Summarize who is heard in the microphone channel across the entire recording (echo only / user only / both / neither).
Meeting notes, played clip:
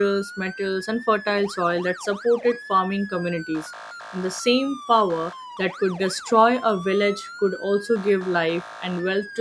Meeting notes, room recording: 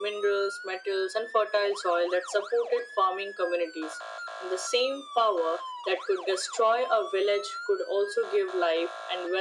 echo only